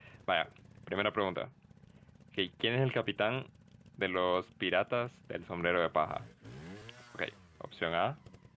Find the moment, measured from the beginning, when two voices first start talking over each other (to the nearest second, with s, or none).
none